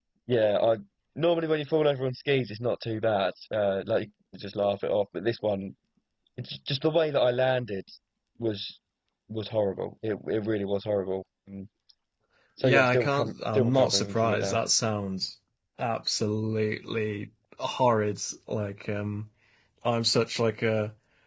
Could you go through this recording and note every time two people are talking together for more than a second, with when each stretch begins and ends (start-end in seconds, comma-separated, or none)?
12.6-14.6